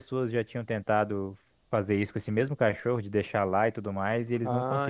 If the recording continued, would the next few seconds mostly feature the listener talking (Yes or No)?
Yes